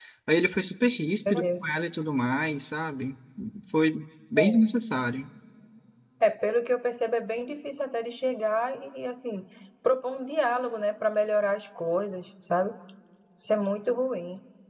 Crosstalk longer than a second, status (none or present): none